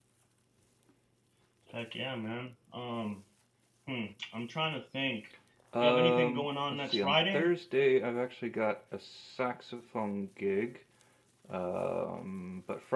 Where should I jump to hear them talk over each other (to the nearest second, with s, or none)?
6 s